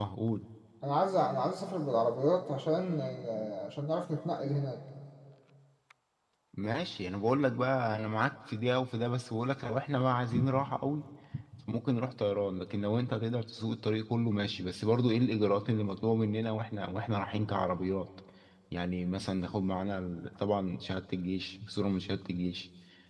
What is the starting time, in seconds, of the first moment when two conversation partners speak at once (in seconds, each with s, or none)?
none